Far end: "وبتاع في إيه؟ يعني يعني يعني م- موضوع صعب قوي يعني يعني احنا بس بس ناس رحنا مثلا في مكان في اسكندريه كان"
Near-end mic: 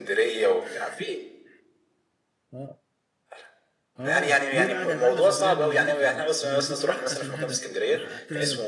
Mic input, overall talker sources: both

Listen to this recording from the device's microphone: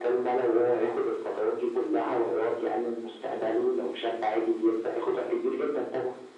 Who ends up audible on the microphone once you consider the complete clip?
echo only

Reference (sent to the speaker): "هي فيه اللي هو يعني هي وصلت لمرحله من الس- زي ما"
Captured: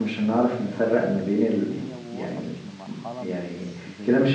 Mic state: both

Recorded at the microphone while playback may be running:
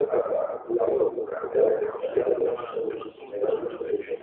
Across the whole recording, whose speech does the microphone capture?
both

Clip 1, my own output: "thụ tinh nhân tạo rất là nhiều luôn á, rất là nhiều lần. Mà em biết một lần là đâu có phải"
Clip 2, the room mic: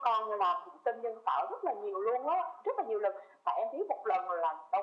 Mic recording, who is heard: echo only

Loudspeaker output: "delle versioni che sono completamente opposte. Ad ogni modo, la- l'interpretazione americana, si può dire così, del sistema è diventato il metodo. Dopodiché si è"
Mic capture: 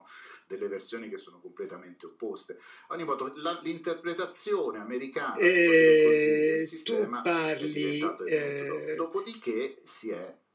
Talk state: both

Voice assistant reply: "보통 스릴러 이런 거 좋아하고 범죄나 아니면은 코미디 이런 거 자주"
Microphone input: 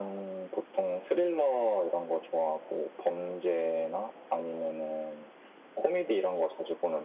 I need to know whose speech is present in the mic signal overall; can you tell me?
echo only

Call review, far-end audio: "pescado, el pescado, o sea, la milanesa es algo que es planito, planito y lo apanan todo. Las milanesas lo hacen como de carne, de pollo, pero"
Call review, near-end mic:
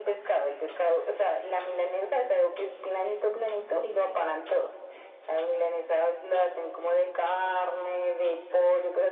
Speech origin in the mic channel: echo only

